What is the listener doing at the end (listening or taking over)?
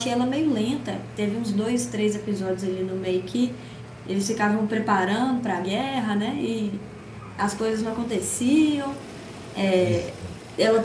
listening